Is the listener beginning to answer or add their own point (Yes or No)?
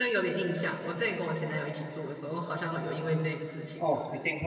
Yes